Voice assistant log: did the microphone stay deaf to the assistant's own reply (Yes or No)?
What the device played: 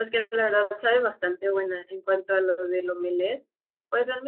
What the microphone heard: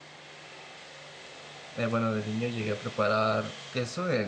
Yes